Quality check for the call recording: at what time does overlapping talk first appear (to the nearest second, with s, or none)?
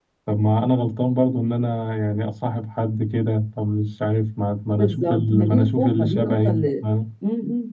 5 s